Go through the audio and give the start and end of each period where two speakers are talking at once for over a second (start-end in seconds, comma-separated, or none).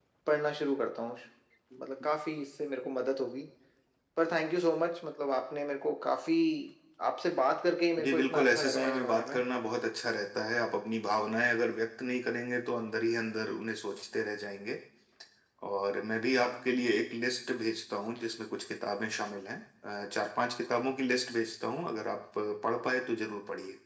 8.0-9.4